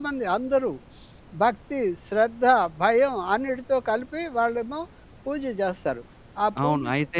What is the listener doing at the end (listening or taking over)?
taking over